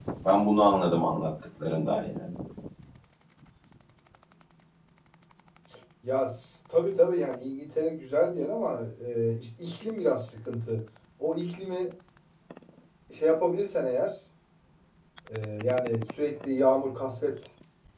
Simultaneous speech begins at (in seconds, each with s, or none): none